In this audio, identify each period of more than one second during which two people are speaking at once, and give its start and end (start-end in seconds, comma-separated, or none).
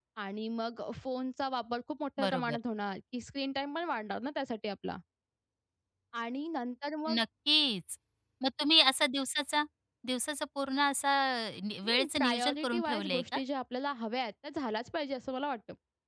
11.8-13.4